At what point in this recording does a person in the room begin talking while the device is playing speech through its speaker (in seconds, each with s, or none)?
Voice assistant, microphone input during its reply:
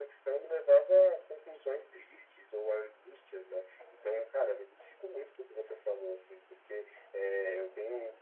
none